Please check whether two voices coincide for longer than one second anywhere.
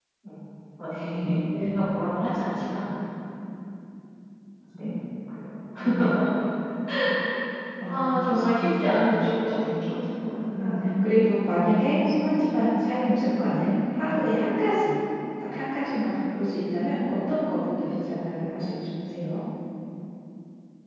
Yes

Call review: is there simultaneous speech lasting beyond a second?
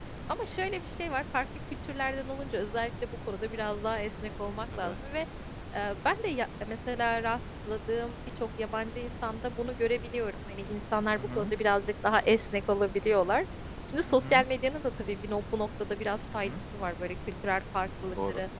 No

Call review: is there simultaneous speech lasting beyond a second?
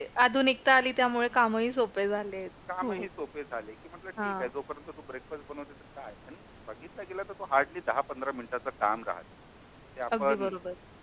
No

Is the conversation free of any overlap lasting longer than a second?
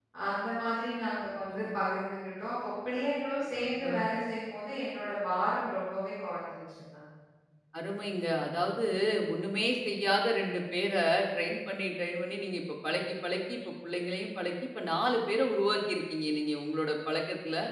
Yes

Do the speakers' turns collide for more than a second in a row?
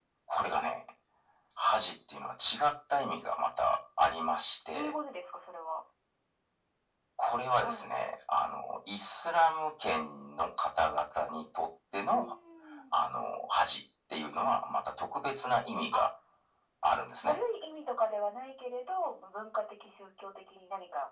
No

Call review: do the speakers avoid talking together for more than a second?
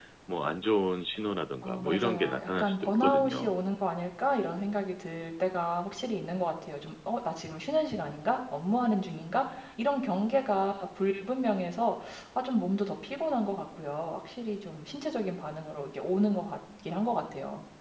No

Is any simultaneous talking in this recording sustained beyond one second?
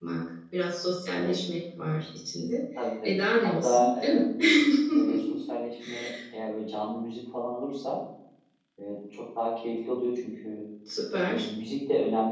Yes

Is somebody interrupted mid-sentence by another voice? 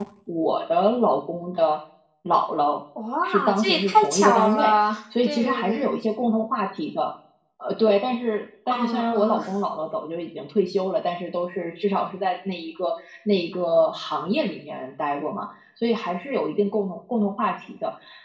Yes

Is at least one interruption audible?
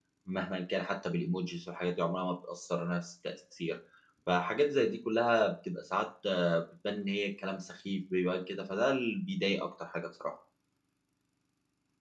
No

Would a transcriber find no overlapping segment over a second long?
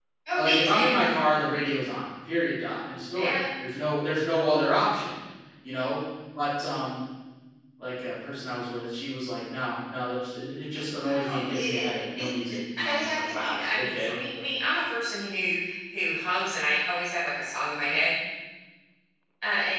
No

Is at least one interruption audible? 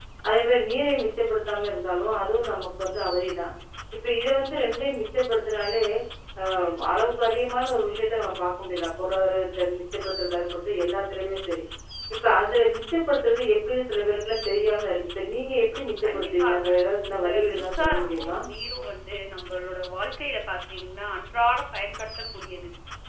Yes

